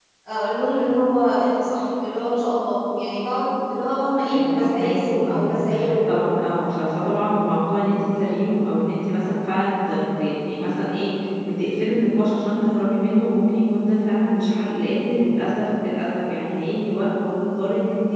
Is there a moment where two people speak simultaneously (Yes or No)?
Yes